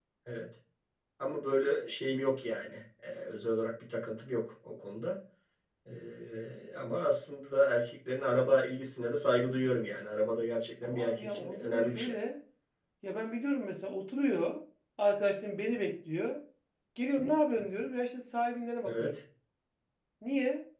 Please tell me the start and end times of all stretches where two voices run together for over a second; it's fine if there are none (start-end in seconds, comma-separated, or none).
10.8-12.1